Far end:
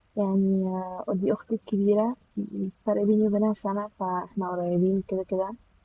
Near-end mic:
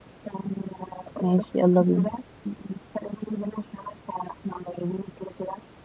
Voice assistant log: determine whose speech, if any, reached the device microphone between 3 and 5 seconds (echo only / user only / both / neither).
echo only